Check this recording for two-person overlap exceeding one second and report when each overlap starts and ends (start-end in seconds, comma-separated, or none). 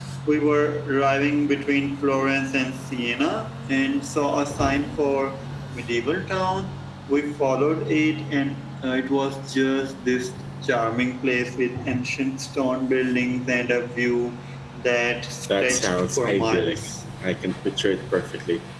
15.6-16.8